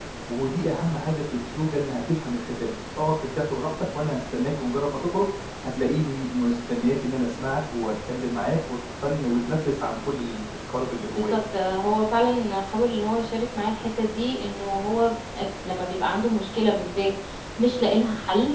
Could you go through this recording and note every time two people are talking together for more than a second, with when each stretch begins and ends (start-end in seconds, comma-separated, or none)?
none